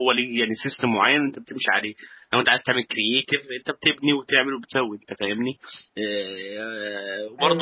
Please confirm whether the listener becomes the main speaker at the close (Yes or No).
No